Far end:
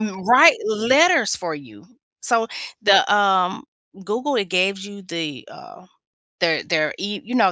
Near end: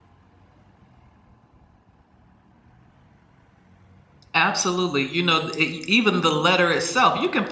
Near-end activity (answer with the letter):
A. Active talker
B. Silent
A